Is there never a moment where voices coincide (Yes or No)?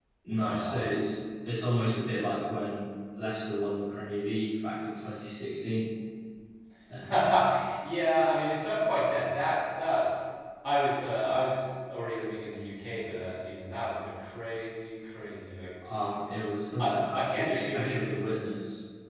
No